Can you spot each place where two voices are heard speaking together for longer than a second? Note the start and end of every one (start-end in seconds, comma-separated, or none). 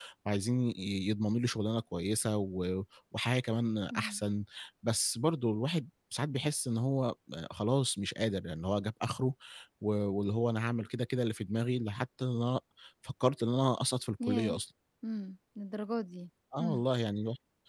none